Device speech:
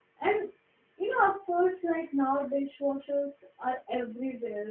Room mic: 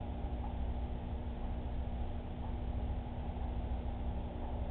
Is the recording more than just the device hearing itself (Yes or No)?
No